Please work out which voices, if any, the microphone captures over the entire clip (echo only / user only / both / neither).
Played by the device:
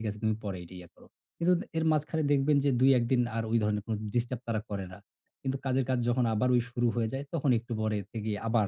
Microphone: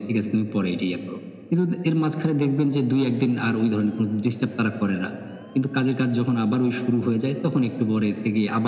echo only